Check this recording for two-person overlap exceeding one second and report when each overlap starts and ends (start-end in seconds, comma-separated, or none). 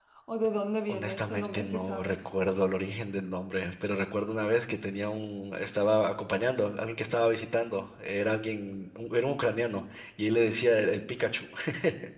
0.9-2.3